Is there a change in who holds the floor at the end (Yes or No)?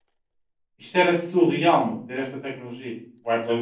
Yes